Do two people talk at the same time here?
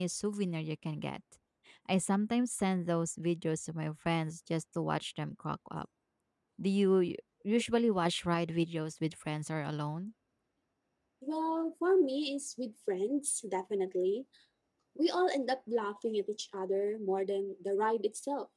No

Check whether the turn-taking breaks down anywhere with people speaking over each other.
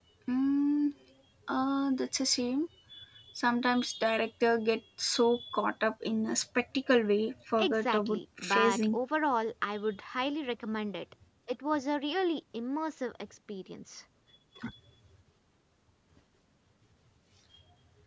Yes, from 7.6 s

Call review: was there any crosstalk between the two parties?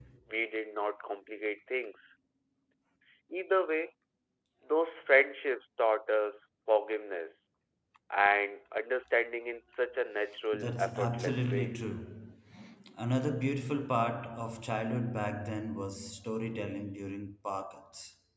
Yes, from 10.5 s

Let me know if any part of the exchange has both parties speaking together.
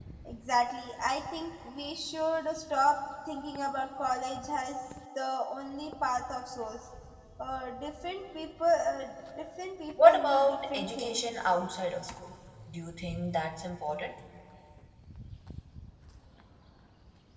Yes, from 10.0 s

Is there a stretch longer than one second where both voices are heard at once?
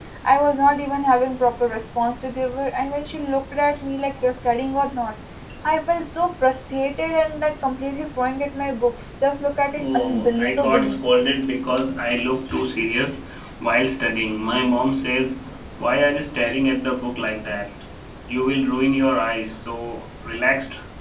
Yes, from 9.7 s

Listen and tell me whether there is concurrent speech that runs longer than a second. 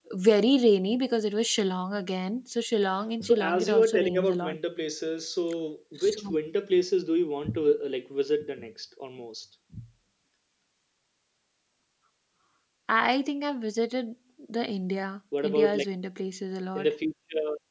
Yes, from 3.2 s

